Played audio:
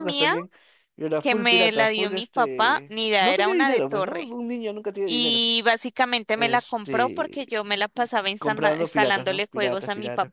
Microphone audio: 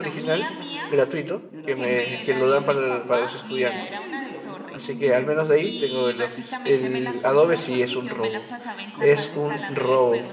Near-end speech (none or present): present